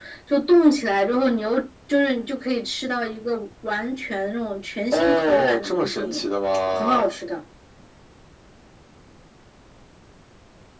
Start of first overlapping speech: 4.9 s

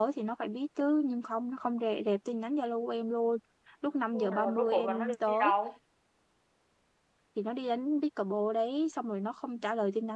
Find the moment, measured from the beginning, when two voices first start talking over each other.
4.1 s

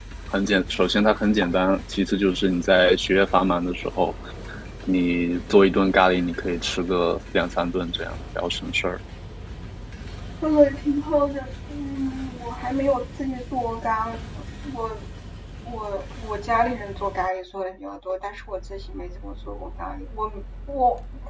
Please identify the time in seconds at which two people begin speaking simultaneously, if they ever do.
none

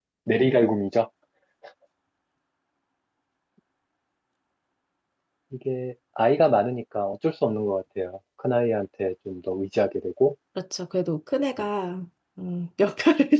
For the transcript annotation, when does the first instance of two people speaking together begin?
none

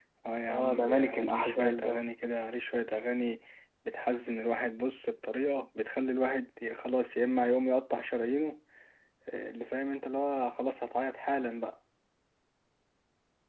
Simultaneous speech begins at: 0.5 s

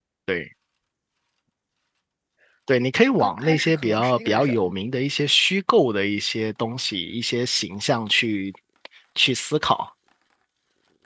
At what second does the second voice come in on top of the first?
3.2 s

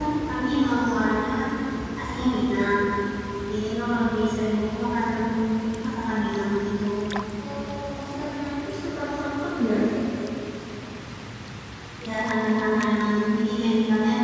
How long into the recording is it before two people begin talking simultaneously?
none

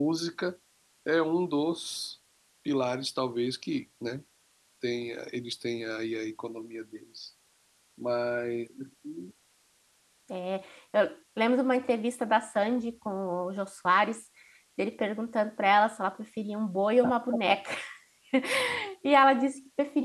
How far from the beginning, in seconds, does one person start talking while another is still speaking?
none

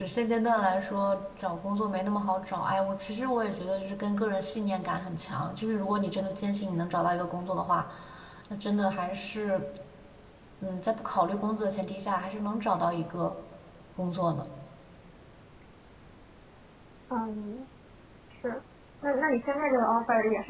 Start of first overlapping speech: none

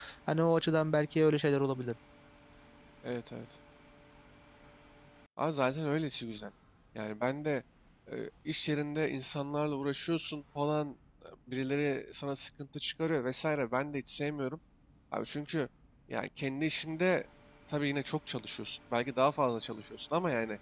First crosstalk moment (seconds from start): none

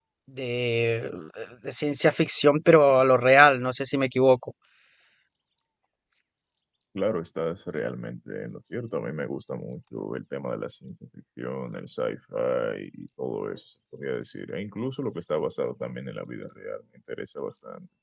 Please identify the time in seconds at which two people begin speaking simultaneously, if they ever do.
none

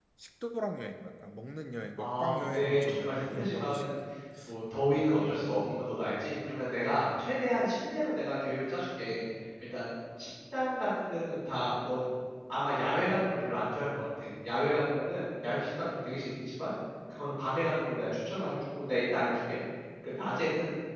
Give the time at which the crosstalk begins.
2.0 s

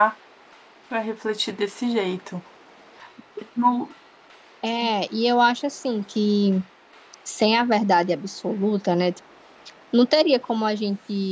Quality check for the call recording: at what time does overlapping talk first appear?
none

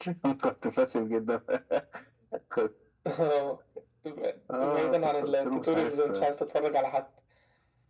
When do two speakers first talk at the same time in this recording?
4.6 s

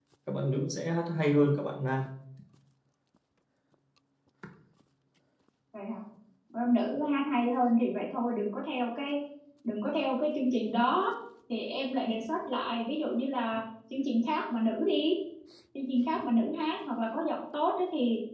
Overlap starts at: none

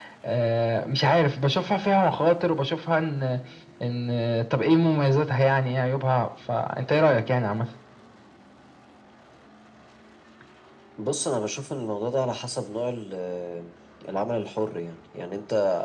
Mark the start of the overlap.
none

